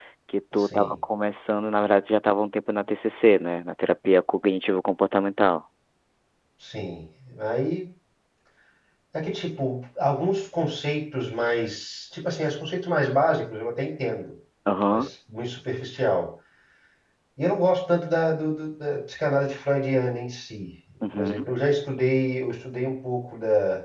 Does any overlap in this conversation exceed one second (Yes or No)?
No